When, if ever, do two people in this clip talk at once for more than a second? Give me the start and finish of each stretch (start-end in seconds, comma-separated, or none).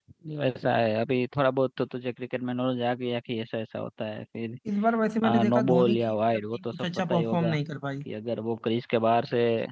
5.5-7.6